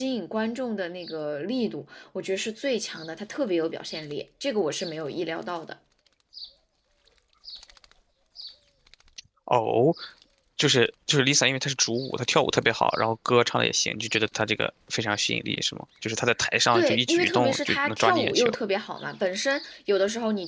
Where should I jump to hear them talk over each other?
16.7 s

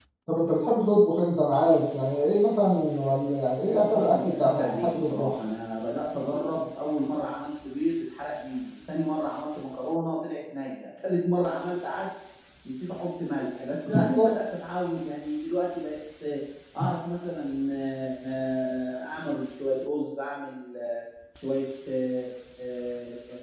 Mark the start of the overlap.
3.7 s

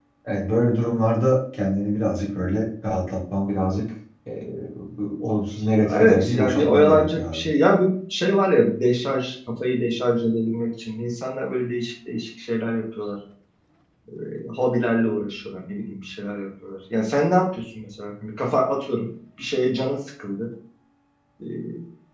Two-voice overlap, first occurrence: 5.8 s

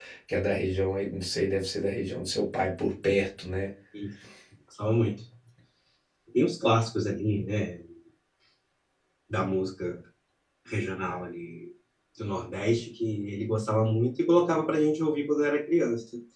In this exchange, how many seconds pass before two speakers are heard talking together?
none

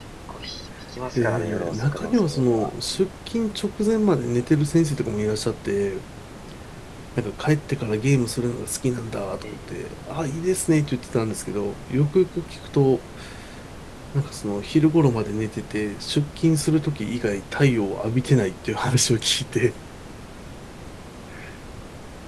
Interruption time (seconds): 1.2 s

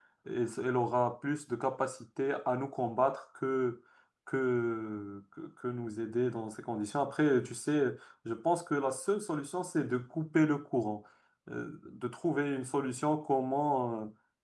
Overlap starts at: none

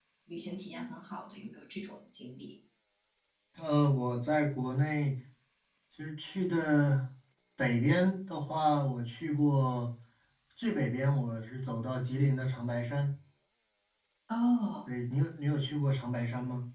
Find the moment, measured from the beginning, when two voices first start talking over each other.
none

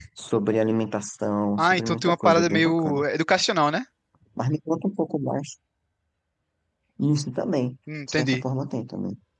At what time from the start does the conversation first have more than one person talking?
1.6 s

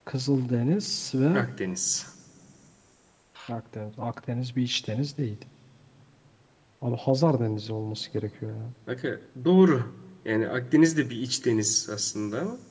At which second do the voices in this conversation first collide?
none

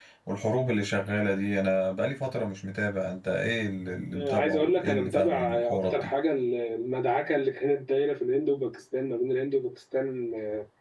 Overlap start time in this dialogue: 4.1 s

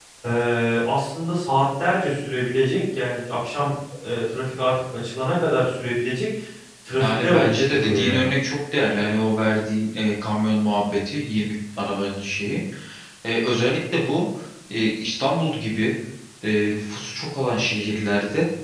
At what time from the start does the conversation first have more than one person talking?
7.0 s

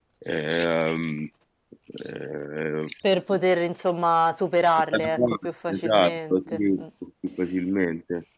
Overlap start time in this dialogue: 4.9 s

